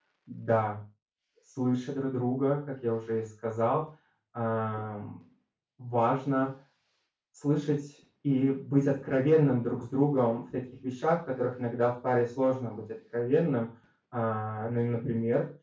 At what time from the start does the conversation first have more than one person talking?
none

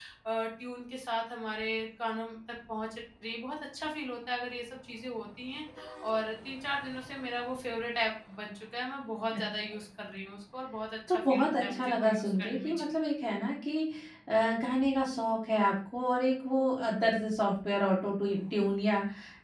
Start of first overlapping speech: 11.1 s

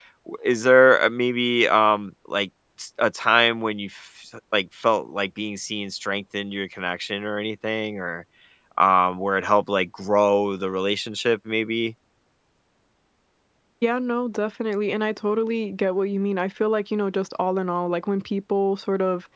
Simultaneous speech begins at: none

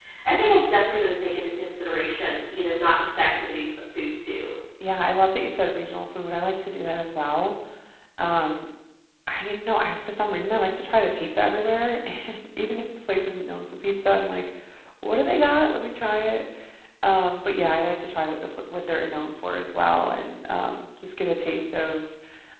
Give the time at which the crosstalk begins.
none

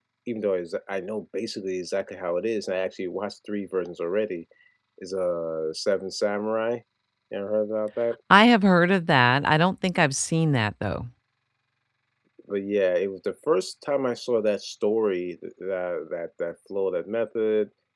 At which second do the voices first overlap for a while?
none

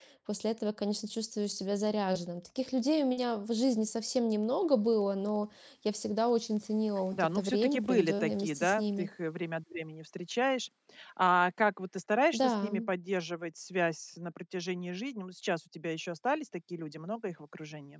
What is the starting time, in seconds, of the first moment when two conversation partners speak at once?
7.1 s

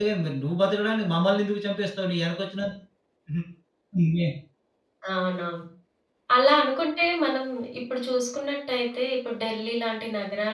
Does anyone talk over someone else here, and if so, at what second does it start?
none

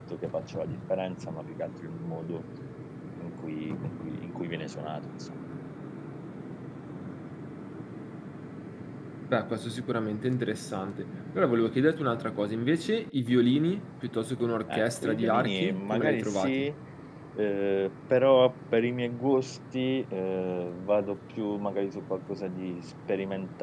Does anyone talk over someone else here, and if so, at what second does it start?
14.7 s

